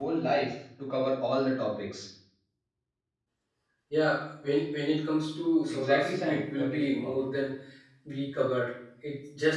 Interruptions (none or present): present